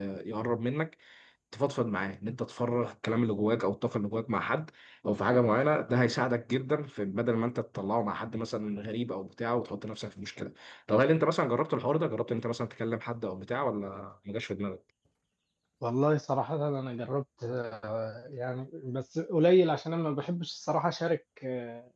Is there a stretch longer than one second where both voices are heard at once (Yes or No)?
No